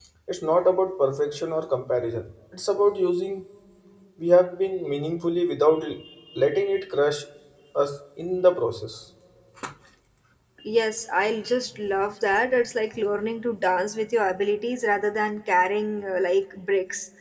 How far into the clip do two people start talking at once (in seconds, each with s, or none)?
none